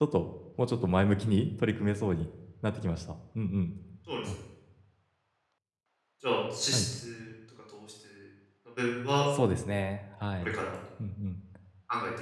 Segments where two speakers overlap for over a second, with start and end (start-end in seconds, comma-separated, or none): none